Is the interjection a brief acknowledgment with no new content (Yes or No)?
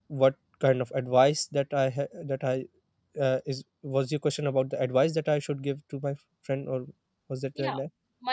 No